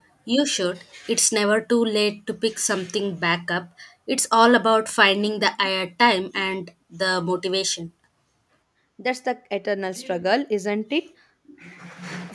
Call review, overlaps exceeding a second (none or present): none